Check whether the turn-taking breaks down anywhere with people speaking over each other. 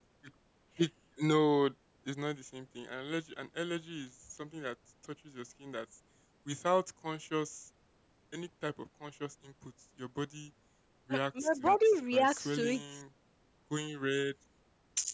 Yes, from 11.1 s

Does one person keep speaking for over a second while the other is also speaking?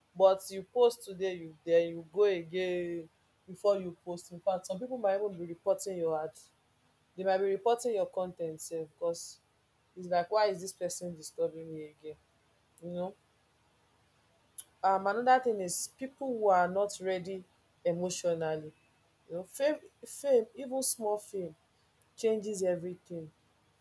No

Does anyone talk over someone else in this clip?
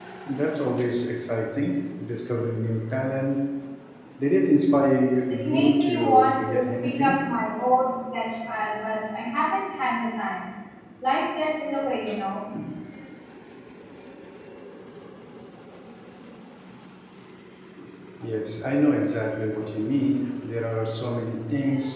Yes, from 5.3 s

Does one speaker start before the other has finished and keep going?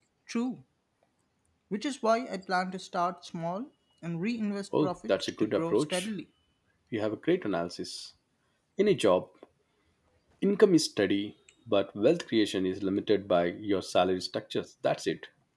Yes, from 4.7 s

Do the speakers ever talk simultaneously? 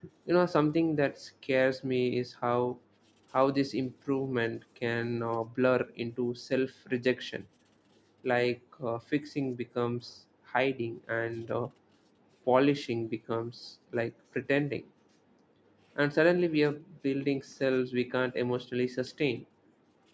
No

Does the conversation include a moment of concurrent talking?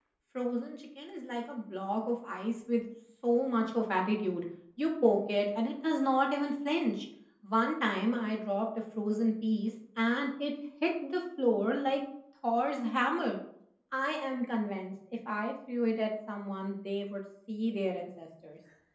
No

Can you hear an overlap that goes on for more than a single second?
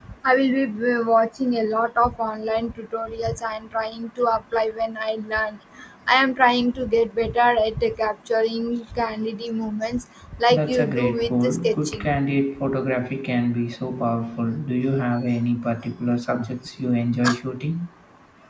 Yes, from 10.5 s

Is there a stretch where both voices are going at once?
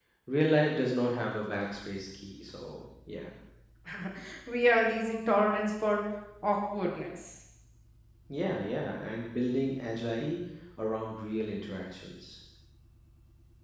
No

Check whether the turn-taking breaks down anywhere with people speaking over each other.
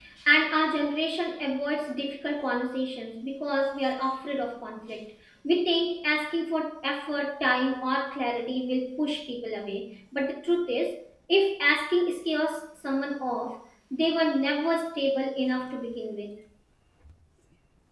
No

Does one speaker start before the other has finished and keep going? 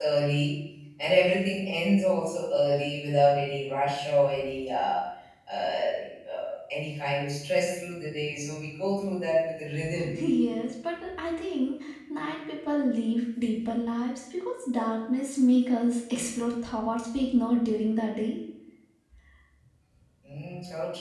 No

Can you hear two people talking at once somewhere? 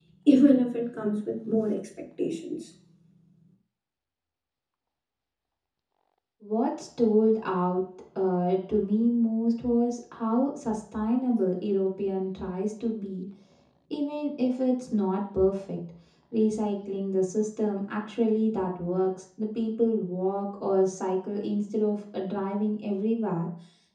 No

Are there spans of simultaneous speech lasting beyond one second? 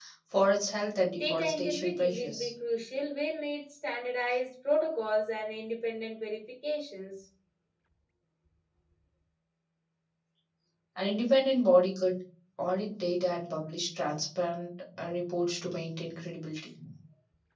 Yes, from 1.1 s

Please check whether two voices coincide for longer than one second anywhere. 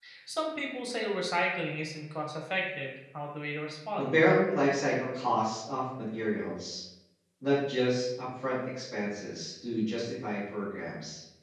No

